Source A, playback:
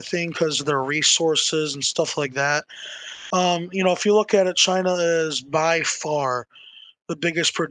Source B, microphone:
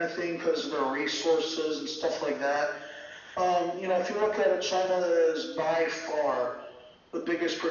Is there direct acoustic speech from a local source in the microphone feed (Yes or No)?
No